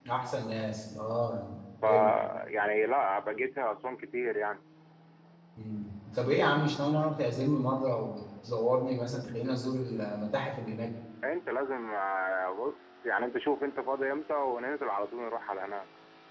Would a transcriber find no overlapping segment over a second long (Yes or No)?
Yes